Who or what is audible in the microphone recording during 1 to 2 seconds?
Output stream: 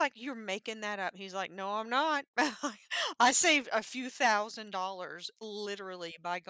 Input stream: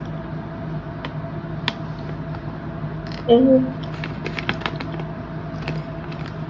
neither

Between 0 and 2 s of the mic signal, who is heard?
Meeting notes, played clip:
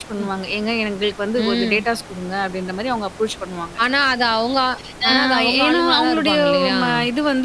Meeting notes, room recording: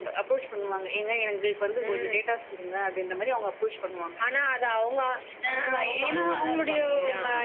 echo only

